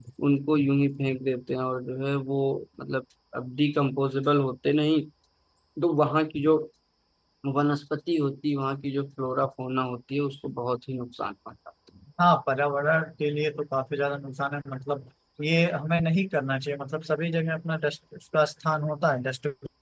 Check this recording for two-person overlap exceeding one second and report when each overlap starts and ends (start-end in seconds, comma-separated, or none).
none